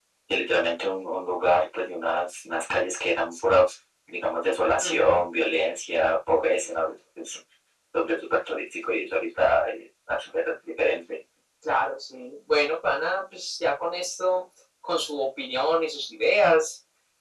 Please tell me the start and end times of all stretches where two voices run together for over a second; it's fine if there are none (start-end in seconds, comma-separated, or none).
none